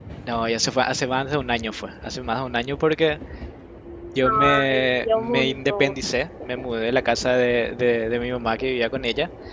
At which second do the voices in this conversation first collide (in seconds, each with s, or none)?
4.2 s